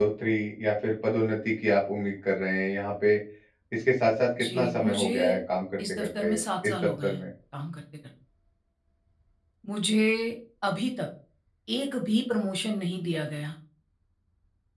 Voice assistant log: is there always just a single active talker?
No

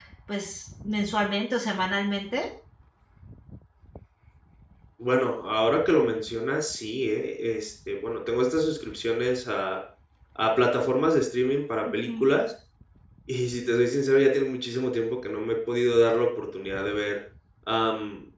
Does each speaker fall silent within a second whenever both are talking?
Yes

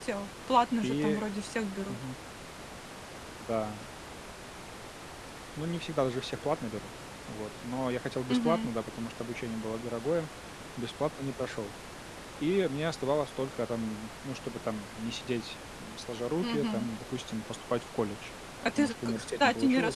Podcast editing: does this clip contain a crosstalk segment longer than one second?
Yes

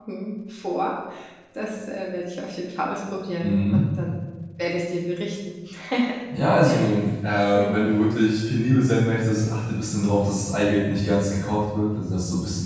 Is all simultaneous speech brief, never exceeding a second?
Yes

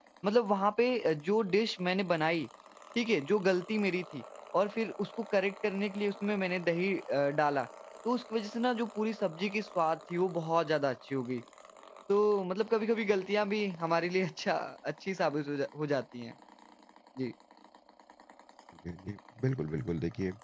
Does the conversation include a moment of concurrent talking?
No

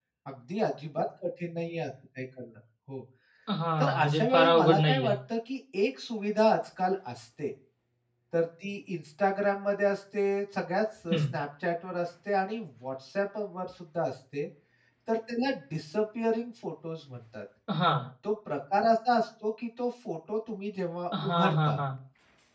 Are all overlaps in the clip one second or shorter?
No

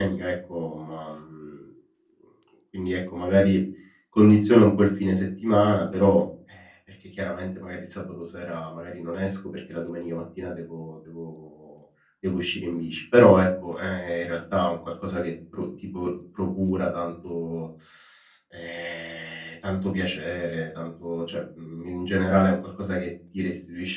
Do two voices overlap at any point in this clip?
No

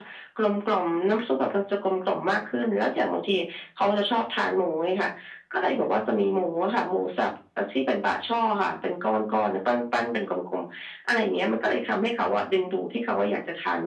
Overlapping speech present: No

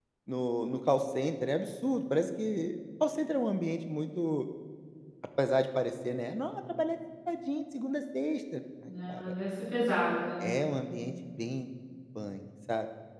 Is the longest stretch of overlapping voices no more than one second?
Yes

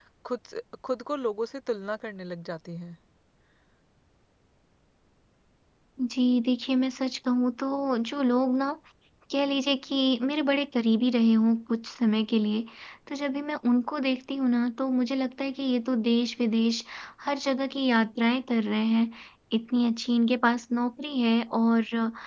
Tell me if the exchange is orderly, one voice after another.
Yes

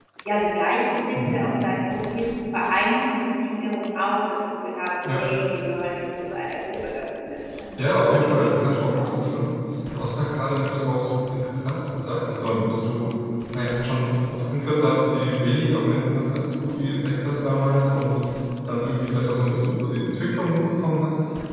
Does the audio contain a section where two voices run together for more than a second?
Yes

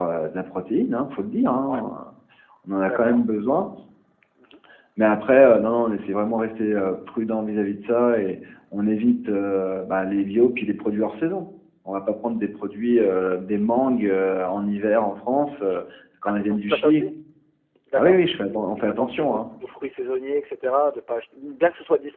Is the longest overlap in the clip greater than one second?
Yes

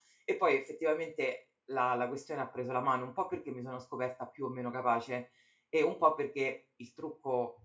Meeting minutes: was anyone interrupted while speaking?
No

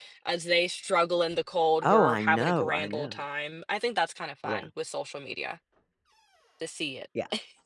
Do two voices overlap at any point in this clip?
Yes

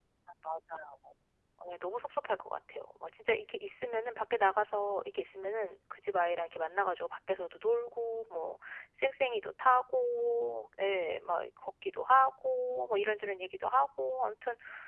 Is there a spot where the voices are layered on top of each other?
No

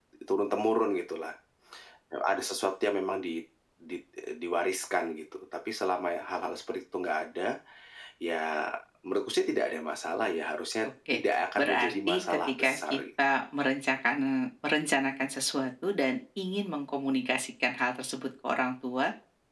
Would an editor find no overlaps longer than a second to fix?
No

